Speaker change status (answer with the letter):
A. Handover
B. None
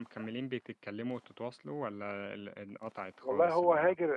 A